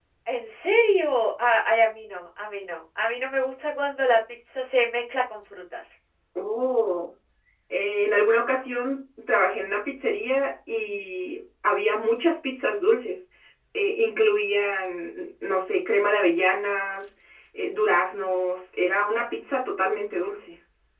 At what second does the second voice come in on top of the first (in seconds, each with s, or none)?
none